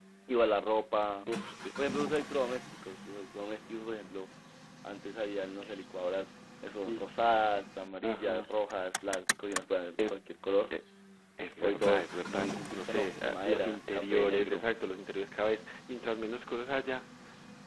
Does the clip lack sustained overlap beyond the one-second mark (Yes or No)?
No